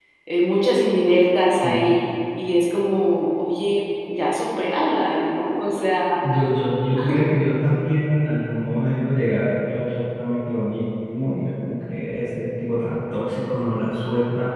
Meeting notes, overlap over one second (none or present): none